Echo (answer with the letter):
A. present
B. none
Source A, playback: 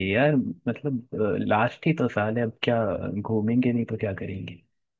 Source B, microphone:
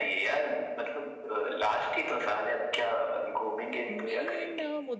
A